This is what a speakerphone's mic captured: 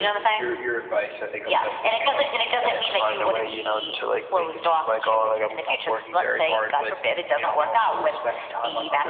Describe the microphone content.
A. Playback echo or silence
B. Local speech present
A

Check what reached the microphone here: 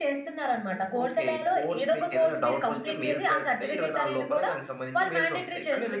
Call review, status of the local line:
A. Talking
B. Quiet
B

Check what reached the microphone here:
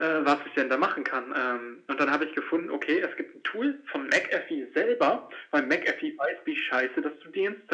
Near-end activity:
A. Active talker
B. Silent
B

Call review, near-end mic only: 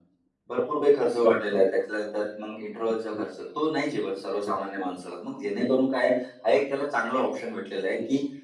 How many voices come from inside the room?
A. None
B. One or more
A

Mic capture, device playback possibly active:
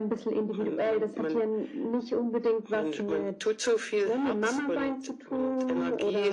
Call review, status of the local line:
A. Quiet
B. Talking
A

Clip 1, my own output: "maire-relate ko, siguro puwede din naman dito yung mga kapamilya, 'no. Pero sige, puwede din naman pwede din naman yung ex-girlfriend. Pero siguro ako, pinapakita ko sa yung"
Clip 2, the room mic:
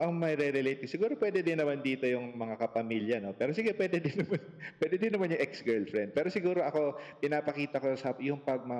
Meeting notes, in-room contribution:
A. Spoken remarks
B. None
B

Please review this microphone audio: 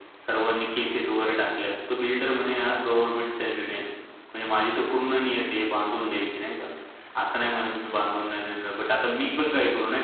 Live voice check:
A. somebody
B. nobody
B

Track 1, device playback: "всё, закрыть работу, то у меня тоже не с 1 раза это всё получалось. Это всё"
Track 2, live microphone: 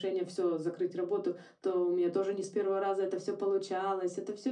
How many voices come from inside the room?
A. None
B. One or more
A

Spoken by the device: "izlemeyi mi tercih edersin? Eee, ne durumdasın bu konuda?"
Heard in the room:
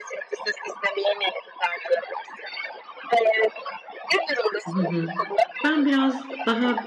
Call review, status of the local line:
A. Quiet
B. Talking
B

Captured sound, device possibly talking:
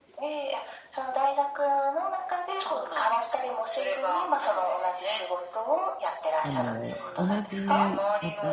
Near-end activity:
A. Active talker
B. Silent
A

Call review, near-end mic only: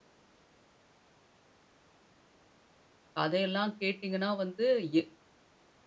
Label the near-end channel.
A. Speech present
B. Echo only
A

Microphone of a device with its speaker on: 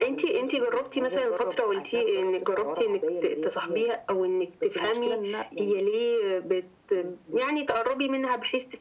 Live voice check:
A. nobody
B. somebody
A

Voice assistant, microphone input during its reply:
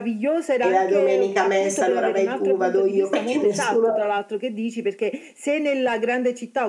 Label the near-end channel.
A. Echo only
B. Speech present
B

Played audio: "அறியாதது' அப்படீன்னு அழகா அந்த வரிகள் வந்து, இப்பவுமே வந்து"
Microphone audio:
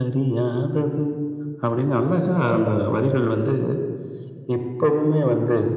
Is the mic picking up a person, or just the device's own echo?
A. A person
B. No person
B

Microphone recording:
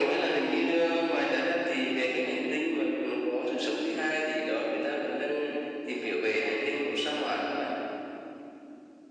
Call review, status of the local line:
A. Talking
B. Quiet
B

